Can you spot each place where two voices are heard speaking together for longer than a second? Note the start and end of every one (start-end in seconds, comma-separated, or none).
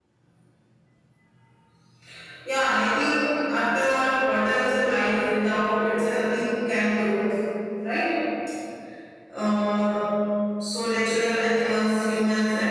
none